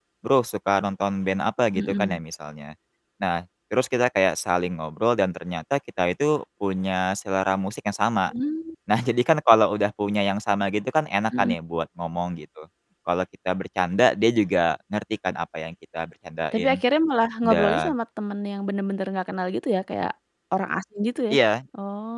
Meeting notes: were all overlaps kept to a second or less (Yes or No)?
Yes